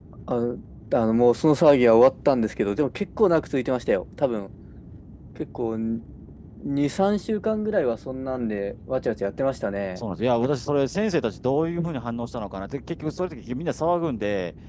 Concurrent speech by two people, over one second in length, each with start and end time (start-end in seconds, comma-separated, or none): none